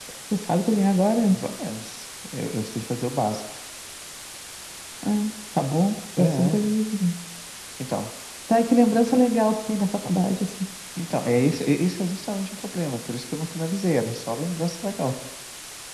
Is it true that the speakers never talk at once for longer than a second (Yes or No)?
Yes